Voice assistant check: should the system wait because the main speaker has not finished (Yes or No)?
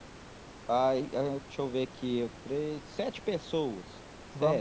No